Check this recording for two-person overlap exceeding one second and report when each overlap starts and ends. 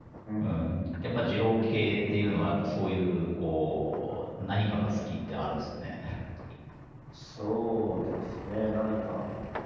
none

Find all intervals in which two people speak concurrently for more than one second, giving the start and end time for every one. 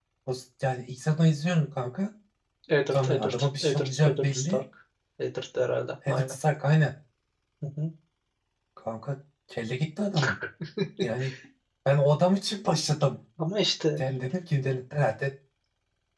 2.9-4.6

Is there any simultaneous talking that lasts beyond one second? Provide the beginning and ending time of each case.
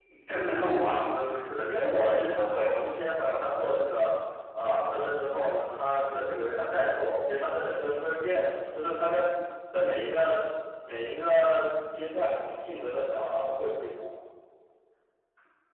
1.6-2.8

